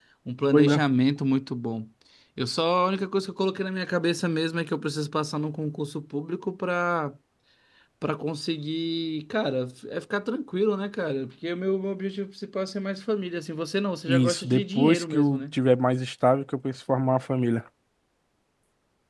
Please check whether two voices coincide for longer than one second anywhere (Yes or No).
Yes